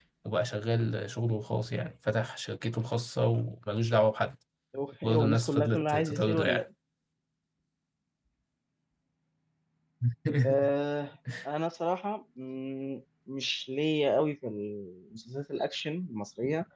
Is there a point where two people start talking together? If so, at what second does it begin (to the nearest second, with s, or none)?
5 s